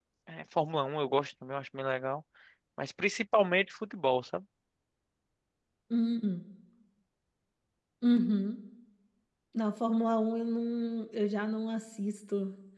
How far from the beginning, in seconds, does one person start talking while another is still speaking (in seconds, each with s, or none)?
none